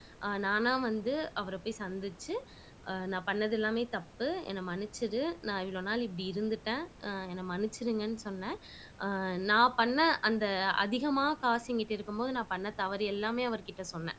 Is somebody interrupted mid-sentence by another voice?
No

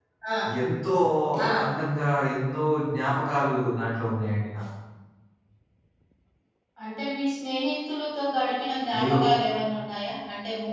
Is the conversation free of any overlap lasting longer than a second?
Yes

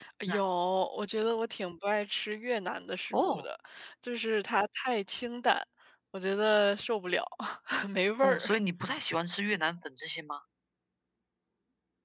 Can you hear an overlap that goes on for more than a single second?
No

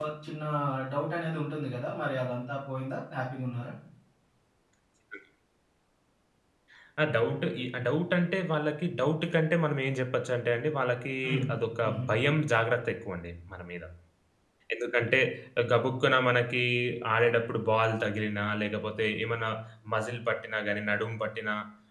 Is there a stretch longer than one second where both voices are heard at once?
No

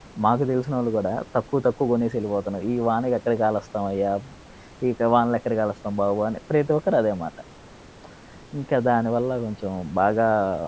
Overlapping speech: No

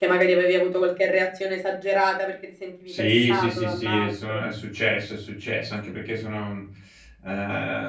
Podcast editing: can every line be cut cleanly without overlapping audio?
No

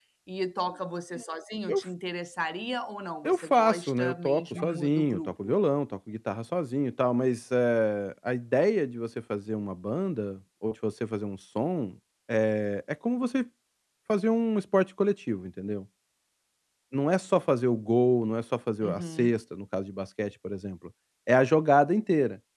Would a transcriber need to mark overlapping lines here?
Yes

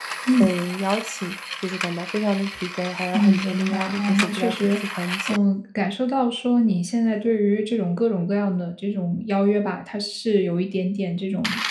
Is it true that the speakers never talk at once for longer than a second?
No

